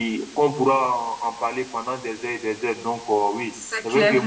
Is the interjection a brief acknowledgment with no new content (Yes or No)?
Yes